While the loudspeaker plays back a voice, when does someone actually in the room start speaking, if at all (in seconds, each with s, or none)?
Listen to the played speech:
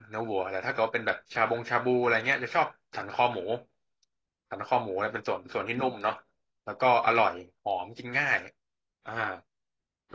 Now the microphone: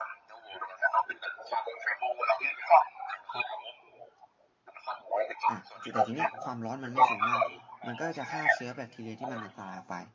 5.5 s